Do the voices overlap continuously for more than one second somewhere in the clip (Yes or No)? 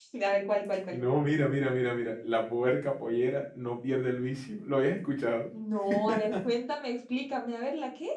No